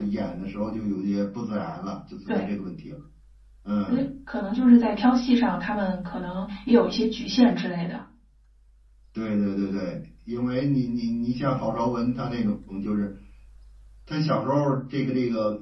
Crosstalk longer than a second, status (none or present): none